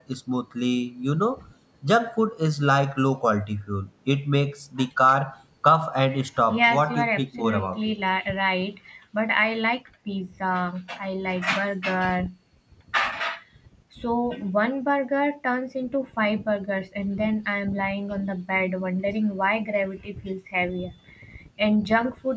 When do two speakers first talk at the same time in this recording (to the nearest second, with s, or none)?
6 s